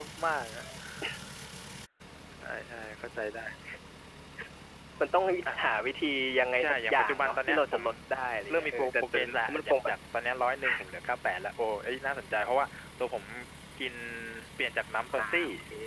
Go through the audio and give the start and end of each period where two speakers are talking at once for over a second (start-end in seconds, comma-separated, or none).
6.6-7.8, 8.5-9.9